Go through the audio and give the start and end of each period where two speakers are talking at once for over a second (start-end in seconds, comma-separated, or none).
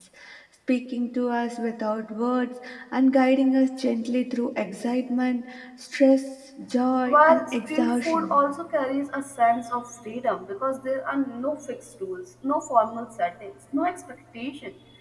7.1-8.4